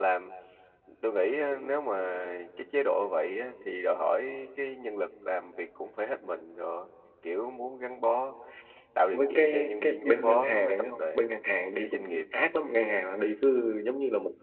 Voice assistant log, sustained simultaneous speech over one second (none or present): present